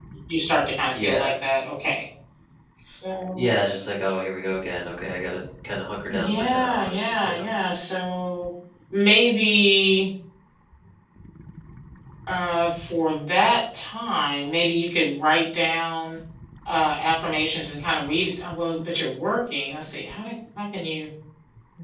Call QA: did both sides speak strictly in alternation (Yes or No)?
No